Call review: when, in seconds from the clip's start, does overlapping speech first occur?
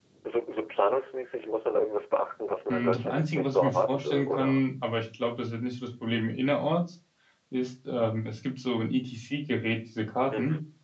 2.7 s

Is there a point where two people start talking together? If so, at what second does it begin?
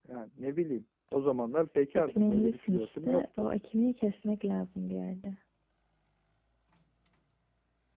1.9 s

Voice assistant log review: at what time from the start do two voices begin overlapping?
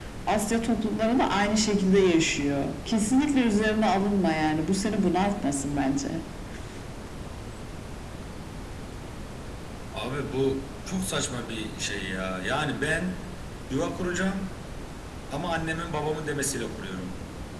none

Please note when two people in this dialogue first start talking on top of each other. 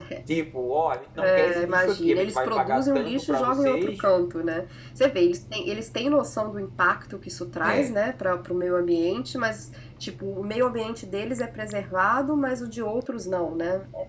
1.2 s

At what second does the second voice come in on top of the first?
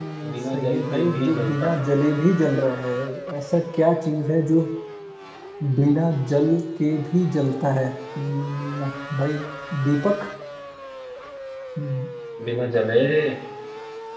0.5 s

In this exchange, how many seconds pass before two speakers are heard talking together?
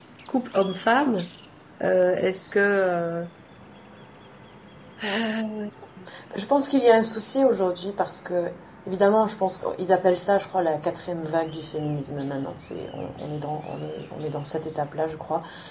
none

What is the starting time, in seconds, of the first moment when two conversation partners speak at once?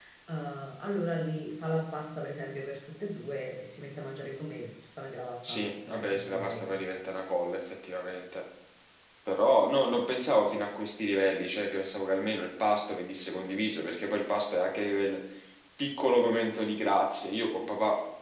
5.4 s

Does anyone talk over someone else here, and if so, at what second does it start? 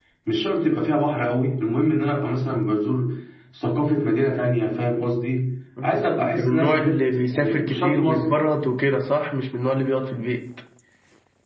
5.8 s

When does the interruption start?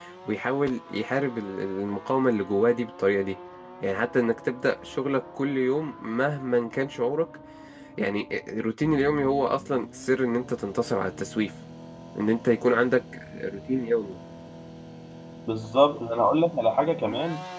none

